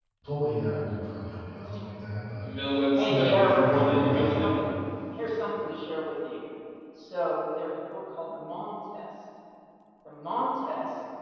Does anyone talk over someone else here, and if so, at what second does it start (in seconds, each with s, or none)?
3.0 s